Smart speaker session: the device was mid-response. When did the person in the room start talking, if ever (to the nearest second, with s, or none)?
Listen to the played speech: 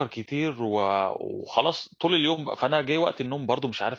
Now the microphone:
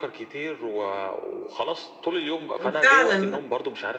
3 s